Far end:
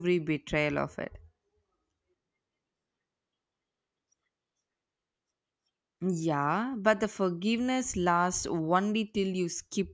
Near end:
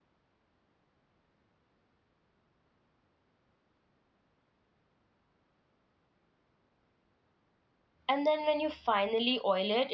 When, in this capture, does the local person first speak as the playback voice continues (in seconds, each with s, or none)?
8.1 s